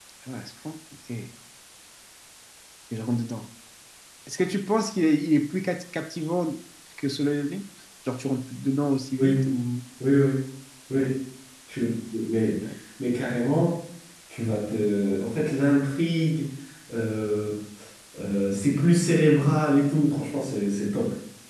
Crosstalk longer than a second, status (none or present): none